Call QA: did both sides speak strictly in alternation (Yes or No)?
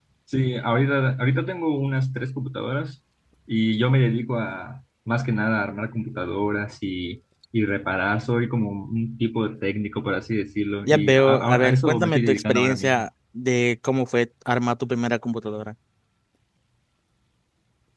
No